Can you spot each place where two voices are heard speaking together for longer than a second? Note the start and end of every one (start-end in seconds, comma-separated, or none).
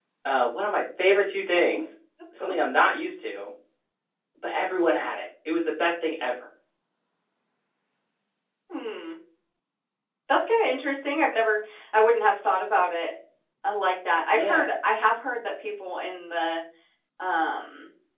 none